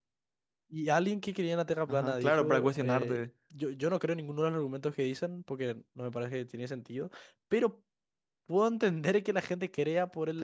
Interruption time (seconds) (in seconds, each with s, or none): 1.9 s